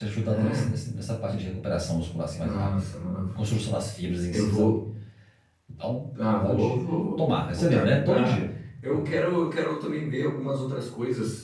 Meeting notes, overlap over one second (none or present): present